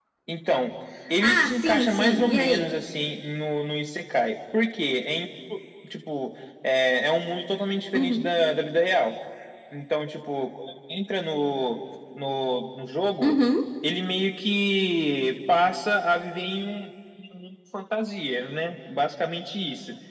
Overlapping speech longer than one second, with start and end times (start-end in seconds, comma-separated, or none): 1.2-2.7